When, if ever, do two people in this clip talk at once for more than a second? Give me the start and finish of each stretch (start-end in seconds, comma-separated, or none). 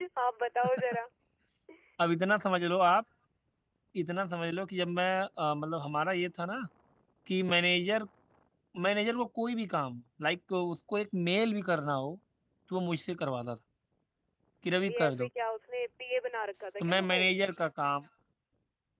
none